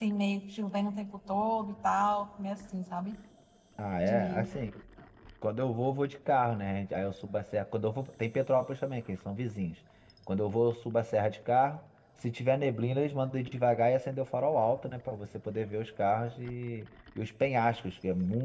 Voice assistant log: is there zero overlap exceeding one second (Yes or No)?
Yes